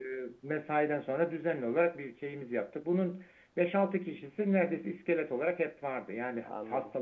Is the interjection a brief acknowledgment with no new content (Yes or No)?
Yes